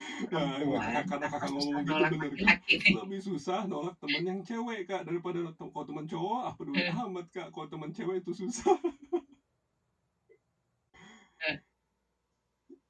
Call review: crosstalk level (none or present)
present